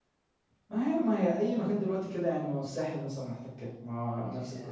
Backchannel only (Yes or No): No